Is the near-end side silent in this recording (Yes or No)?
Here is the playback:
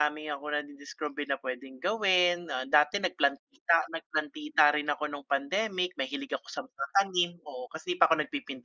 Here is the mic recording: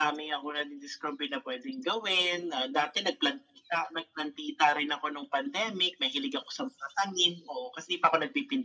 Yes